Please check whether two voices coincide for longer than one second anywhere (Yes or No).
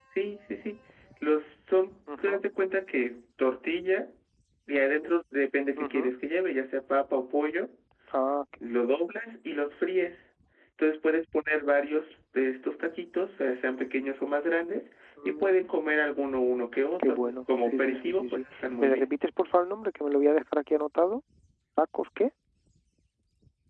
Yes